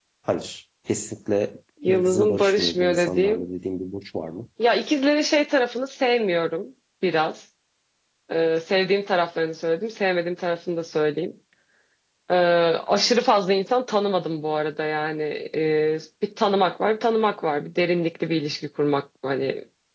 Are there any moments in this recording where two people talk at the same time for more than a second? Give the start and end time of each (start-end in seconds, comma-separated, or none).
1.9-3.5